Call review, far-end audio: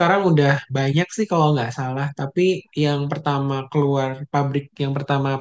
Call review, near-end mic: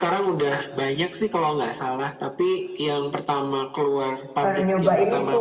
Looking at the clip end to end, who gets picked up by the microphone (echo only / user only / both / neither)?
both